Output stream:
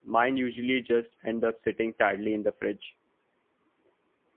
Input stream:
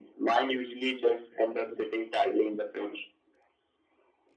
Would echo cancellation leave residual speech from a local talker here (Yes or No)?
No